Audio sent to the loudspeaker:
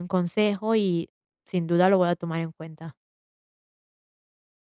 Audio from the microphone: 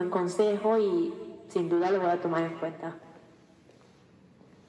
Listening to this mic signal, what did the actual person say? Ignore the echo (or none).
none